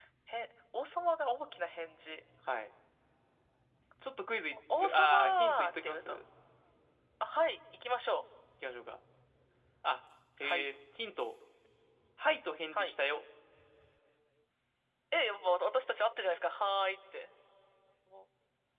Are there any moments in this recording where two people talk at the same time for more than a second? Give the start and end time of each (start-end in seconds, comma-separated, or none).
4.8-6.2